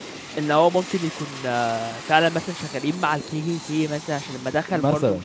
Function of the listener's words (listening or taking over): listening